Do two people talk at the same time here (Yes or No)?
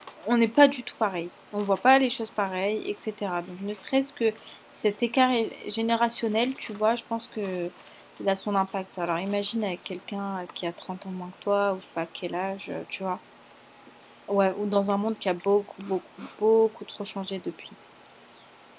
No